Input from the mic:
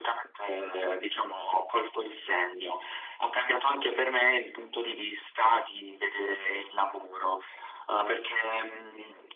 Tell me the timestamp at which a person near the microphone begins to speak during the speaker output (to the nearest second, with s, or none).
none